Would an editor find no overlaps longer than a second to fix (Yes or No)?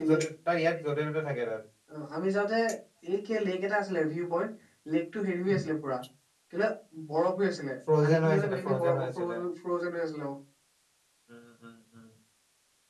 No